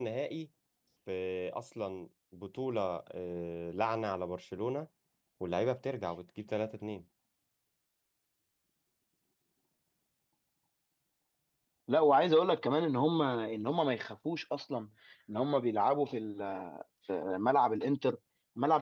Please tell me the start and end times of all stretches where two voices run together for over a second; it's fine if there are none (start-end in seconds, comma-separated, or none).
none